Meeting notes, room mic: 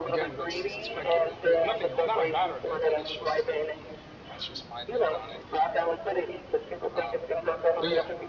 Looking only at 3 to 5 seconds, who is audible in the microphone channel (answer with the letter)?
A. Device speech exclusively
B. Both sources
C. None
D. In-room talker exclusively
B